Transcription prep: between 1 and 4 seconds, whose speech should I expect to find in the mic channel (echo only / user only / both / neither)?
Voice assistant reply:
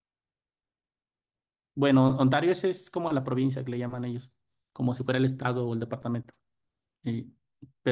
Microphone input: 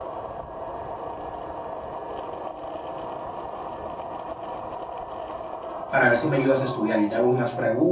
neither